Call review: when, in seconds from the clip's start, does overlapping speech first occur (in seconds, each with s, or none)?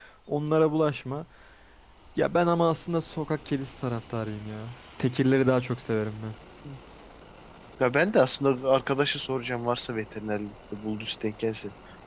none